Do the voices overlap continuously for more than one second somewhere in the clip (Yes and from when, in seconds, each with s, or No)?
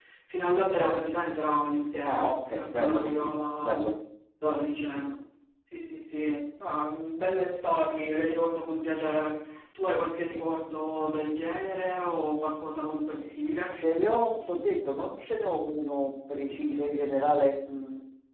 Yes, from 2.0 s